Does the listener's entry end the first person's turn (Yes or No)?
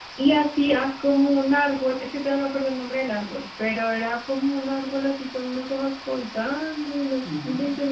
No